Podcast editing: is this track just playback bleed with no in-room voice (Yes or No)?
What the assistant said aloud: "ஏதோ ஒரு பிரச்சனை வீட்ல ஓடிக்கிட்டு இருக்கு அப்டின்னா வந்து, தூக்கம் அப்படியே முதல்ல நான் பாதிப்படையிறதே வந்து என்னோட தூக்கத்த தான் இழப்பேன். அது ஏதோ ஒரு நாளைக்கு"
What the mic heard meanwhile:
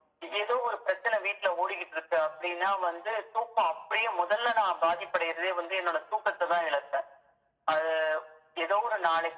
Yes